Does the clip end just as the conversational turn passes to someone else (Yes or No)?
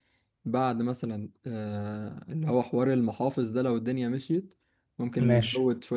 No